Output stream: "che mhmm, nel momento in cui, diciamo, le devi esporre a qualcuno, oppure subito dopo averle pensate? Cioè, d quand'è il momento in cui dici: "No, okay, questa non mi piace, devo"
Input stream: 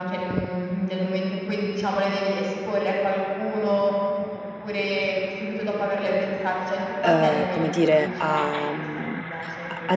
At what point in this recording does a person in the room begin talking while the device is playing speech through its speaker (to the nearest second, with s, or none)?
7 s